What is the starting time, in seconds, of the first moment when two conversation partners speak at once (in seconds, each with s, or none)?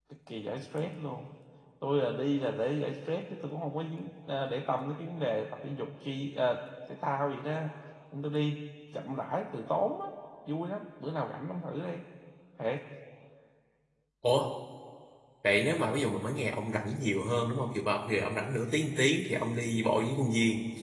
none